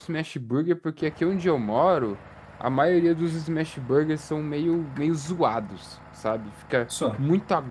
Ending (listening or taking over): listening